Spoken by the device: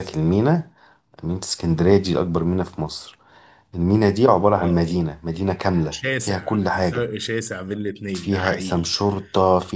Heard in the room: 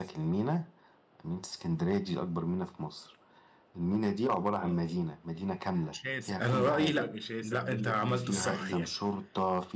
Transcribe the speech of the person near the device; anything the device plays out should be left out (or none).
انا رايي لا لا انت عملت الصح يعني